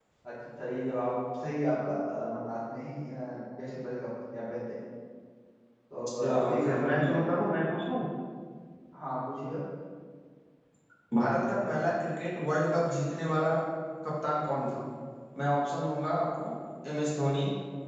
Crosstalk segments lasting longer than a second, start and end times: 6.2-7.5

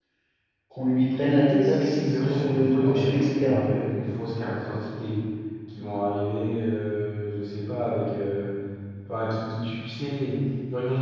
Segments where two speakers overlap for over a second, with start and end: 1.6-3.6

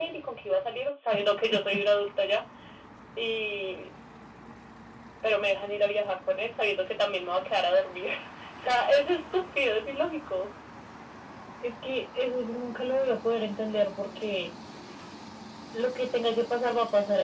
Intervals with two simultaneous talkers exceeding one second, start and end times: none

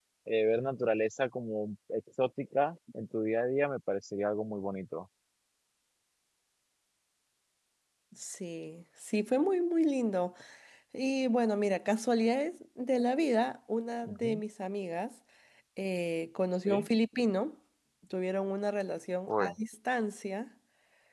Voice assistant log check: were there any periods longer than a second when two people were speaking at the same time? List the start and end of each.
none

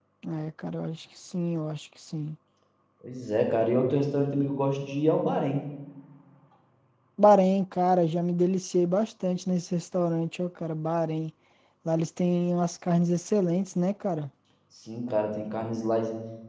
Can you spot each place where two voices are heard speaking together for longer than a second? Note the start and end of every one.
none

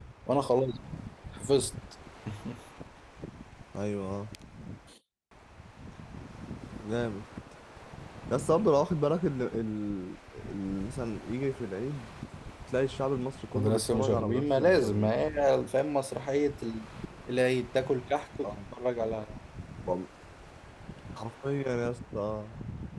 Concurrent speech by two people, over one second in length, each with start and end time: 13.6-15.2

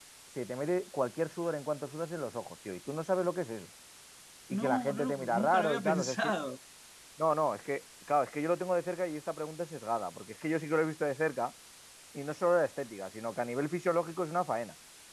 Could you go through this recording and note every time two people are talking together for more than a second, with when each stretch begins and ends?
4.5-6.3

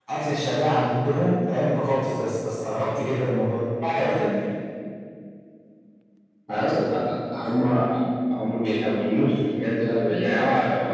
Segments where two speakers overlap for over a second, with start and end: none

